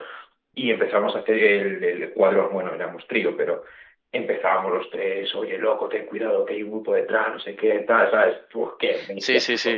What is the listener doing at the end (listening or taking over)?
taking over